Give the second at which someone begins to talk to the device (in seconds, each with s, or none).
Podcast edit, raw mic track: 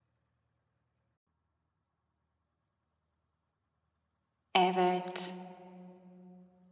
4.5 s